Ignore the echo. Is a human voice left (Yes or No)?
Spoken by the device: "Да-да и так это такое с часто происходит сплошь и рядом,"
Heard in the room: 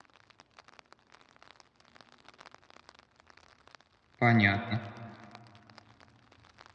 Yes